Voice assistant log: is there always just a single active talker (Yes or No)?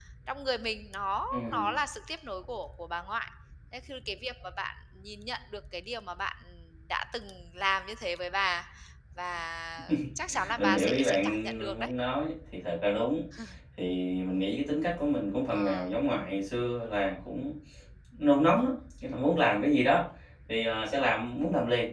No